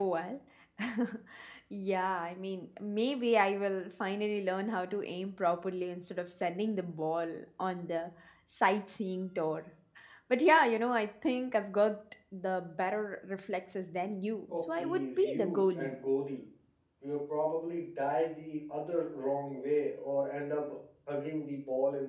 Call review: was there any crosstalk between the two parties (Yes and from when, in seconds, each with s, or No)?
Yes, from 14.5 s